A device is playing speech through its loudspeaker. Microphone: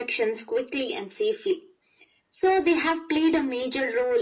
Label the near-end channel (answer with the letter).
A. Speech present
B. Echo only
B